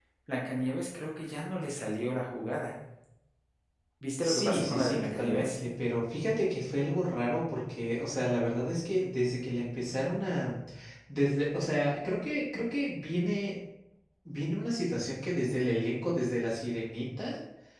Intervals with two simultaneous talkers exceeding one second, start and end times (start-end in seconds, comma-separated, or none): 4.2-5.6